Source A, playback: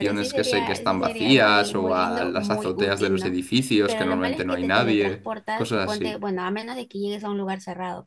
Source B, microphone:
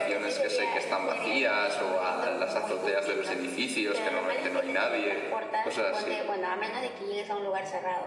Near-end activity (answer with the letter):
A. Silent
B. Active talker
A